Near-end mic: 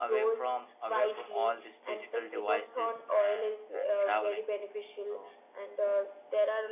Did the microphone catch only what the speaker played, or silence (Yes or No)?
No